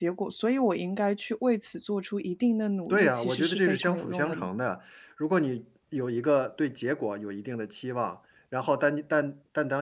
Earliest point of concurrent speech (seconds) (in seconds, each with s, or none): 2.9 s